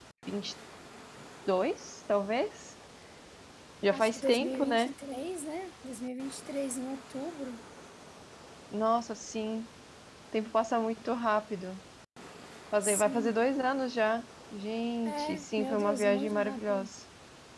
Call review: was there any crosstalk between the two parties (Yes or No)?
Yes